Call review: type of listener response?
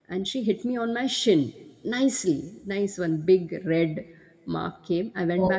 listening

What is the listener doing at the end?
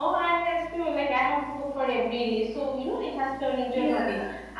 listening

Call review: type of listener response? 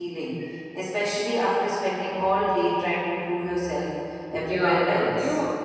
taking over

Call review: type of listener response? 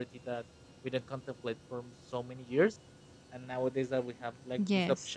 taking over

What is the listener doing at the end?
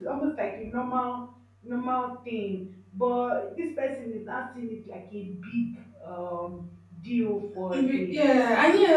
taking over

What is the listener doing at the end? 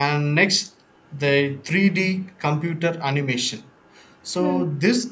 listening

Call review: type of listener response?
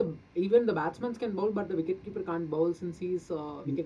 taking over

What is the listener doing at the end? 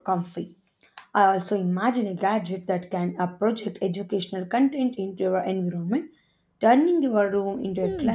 taking over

